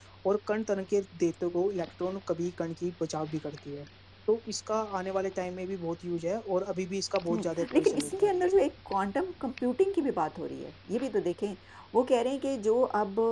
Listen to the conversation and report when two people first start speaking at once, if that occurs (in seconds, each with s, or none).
7.3 s